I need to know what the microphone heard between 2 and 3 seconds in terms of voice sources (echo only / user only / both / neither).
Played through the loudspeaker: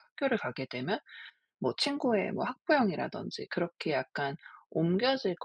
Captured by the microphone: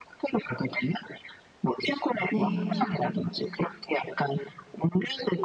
both